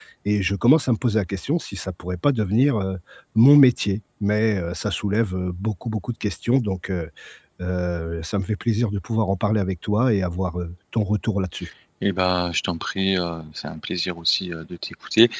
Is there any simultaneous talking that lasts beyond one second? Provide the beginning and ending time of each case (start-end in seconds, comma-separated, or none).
none